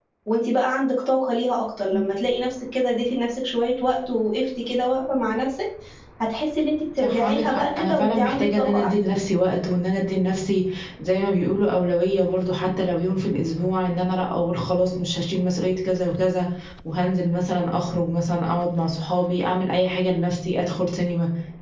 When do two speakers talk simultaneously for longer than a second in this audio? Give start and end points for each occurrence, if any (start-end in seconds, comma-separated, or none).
7.0-9.2